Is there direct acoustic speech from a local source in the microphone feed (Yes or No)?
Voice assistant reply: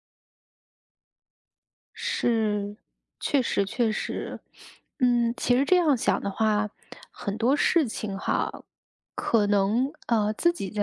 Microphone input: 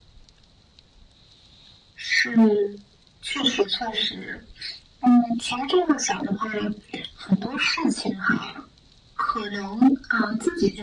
No